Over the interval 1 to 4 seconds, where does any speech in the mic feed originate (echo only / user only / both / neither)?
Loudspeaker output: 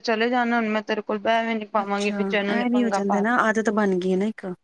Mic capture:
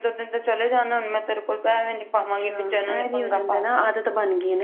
echo only